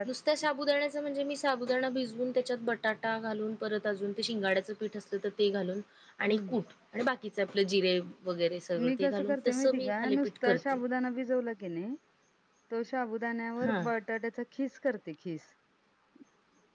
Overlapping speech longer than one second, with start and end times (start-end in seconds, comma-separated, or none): 9.0-10.8